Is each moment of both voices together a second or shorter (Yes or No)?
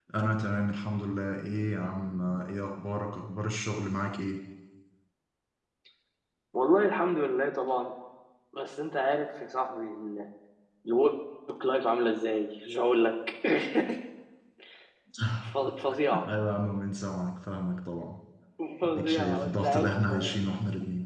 No